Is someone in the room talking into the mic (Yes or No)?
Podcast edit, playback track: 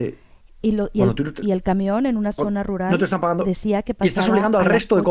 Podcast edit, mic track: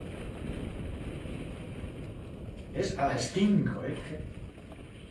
Yes